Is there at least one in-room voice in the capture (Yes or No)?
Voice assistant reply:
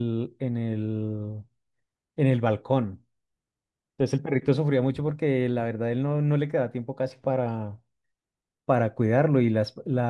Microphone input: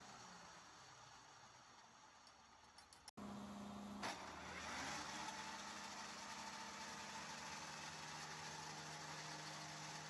No